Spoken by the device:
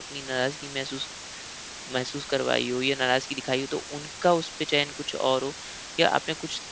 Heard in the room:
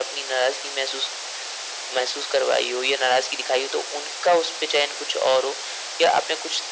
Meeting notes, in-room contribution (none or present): none